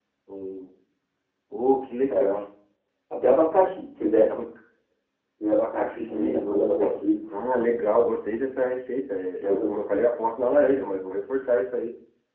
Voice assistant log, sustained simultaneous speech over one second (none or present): present